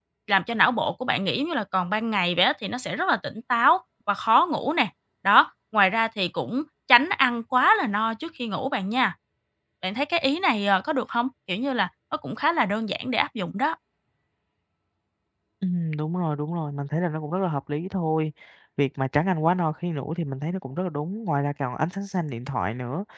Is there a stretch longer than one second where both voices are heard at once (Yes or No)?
No